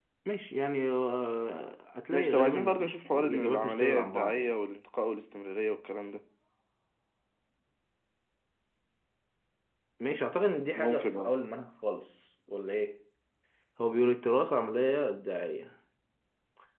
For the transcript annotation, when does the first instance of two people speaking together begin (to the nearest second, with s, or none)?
2 s